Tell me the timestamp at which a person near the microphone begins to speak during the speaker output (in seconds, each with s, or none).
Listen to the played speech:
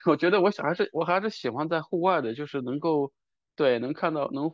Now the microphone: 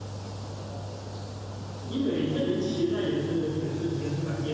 1.8 s